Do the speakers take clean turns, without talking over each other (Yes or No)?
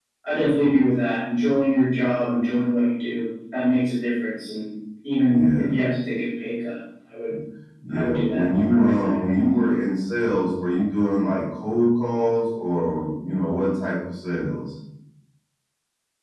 No